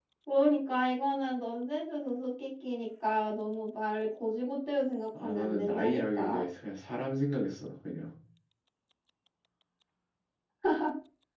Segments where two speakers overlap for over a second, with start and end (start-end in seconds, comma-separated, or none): 5.2-6.4